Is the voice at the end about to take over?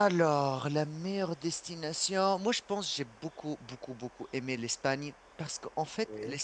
No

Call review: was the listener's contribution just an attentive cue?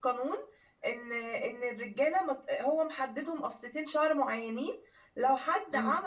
Yes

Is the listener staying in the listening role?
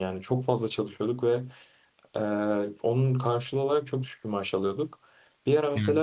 Yes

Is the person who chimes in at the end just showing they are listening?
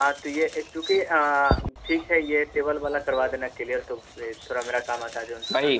No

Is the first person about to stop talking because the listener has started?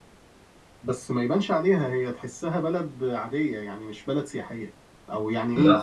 No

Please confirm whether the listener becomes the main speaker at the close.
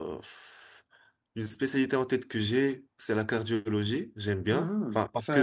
Yes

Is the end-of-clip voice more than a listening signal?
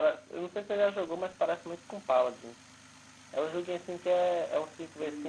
Yes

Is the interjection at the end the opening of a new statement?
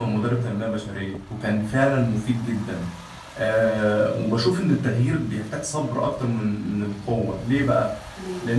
No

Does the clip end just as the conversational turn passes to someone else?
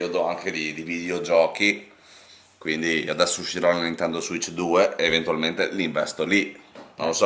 Yes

